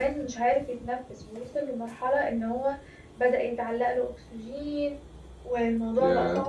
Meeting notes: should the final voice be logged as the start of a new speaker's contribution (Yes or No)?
No